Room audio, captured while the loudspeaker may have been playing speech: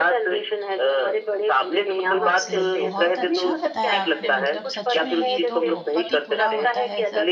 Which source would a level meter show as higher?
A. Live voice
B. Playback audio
B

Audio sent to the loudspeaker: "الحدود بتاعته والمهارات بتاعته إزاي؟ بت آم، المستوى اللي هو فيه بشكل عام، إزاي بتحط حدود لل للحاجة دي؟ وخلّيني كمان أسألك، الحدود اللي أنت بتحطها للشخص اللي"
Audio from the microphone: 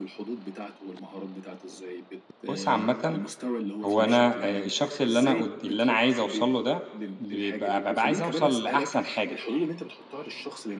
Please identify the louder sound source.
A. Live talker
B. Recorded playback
A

